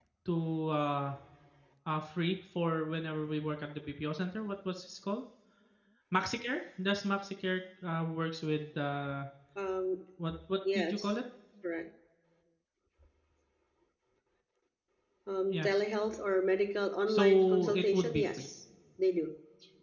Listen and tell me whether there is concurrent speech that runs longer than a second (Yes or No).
Yes